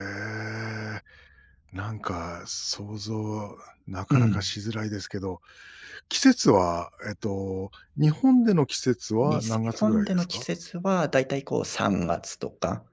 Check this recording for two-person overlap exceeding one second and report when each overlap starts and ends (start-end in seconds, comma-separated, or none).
9.2-10.4